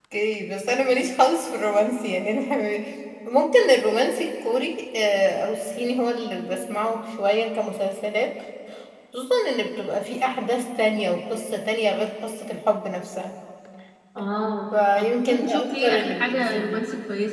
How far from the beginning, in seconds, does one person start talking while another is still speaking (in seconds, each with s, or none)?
15.0 s